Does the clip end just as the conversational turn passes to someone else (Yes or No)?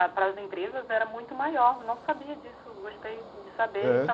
No